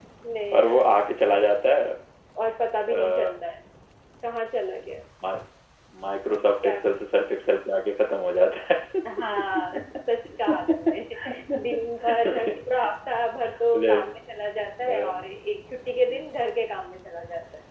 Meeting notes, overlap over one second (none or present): none